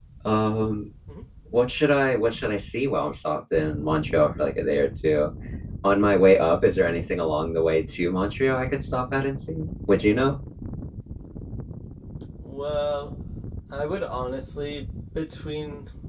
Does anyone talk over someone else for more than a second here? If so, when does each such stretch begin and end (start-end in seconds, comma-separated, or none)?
none